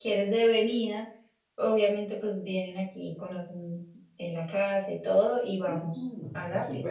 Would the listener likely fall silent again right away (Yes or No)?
No